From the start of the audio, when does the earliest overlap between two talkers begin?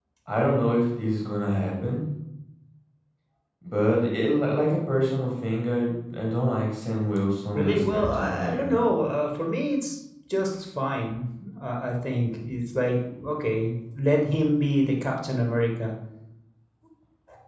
8 s

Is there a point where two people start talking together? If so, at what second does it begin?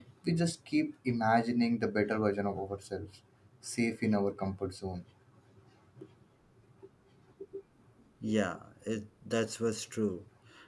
none

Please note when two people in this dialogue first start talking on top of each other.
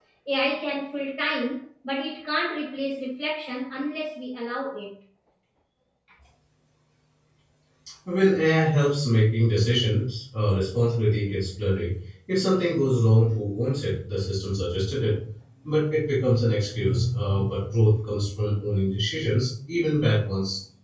none

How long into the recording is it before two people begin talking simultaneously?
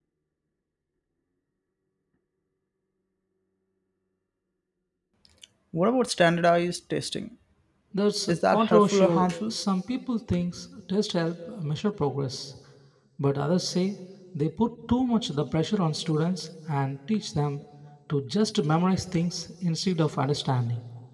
8 s

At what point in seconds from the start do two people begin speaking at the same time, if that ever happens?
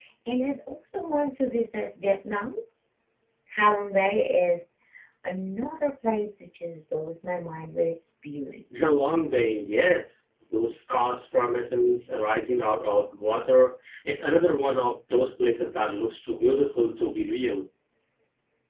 none

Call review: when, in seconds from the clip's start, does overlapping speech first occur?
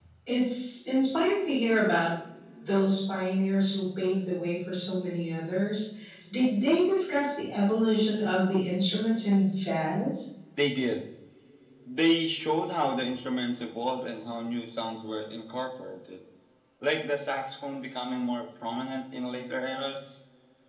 none

